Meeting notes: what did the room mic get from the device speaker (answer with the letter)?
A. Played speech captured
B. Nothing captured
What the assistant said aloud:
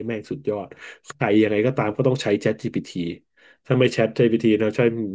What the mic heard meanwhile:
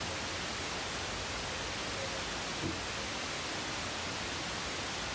B